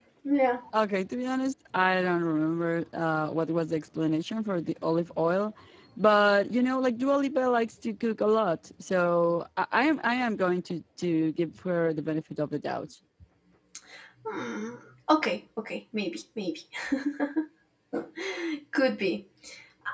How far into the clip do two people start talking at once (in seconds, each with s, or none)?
none